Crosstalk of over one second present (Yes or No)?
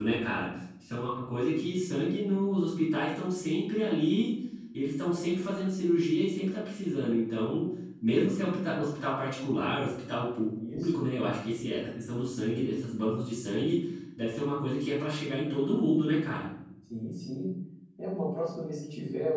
No